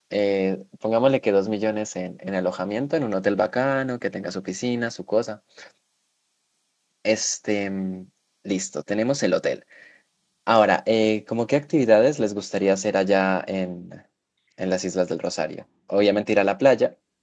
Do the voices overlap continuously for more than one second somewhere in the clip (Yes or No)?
No